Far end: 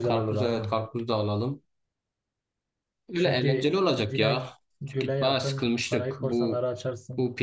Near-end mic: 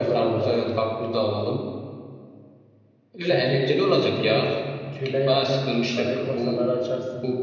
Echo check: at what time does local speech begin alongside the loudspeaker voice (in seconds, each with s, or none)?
none